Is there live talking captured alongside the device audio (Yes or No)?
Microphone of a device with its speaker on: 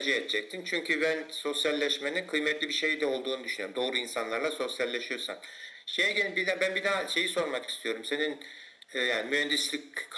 No